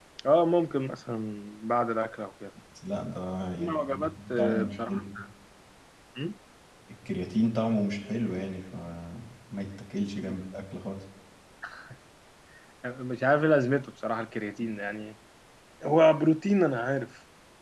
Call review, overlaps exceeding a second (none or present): present